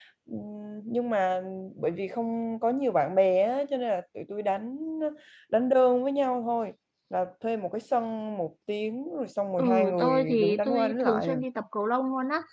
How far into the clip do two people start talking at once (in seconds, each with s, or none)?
9.6 s